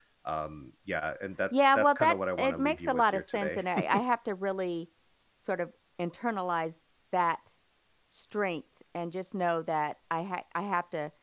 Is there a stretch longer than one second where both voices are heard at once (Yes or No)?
Yes